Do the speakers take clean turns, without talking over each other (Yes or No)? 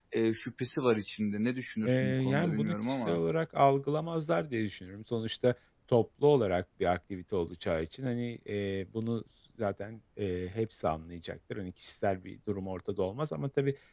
No